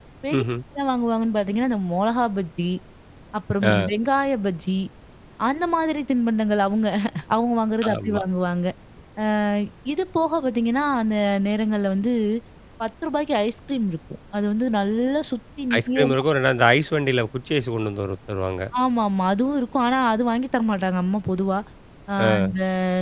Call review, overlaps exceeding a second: none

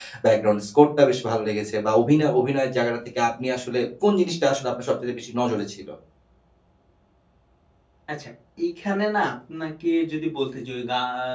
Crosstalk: none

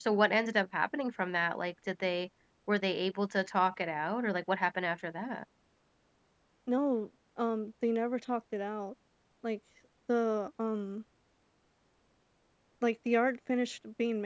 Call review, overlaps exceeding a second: none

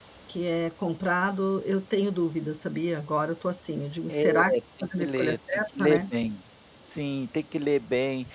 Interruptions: present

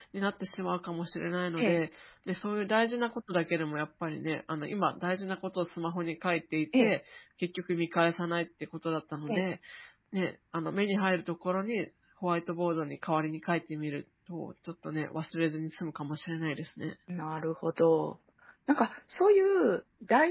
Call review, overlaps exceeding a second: none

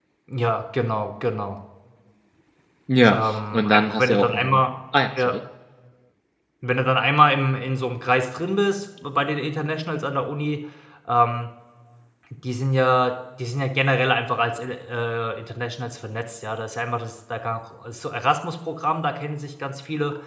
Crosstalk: present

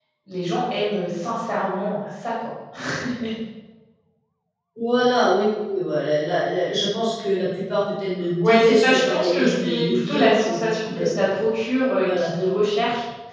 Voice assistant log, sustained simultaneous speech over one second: present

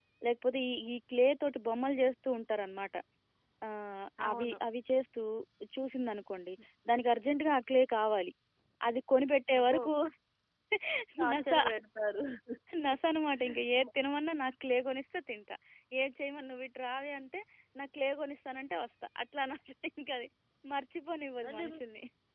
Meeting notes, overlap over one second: none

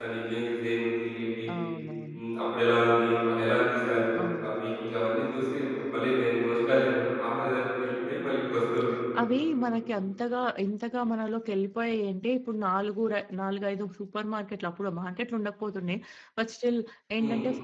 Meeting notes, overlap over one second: none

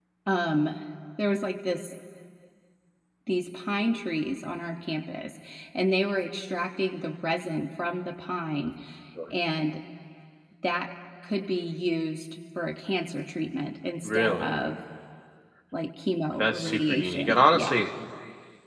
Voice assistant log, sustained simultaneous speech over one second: present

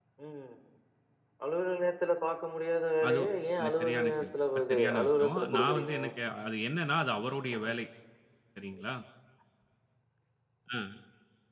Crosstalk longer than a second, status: present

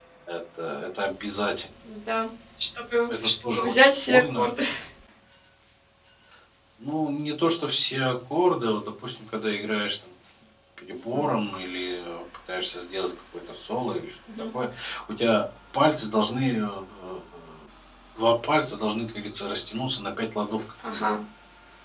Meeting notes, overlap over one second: present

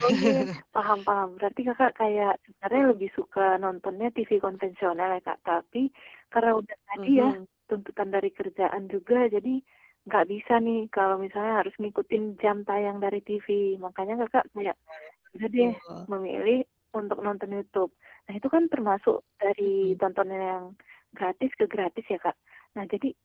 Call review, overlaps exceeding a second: none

